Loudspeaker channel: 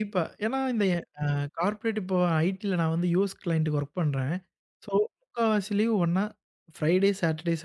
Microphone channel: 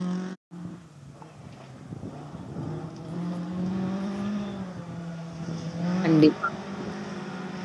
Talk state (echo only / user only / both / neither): user only